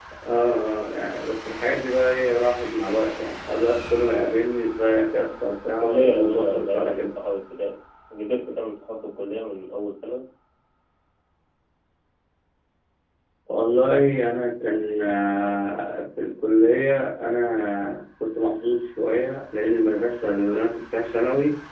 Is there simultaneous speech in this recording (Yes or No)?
Yes